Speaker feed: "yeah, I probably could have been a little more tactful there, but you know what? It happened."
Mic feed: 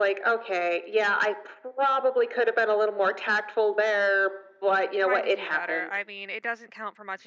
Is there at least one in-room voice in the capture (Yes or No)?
Yes